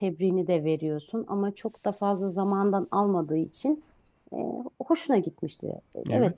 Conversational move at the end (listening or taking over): taking over